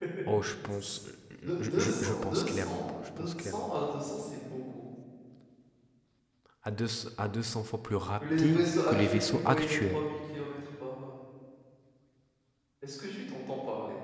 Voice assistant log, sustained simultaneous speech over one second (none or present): present